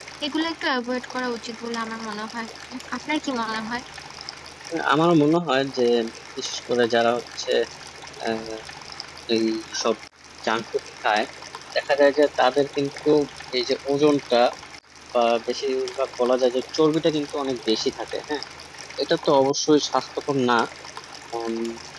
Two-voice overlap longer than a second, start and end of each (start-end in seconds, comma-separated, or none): none